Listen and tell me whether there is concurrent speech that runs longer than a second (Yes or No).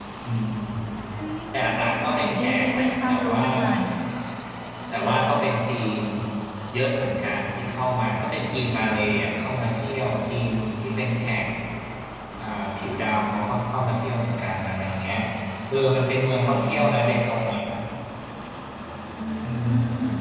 Yes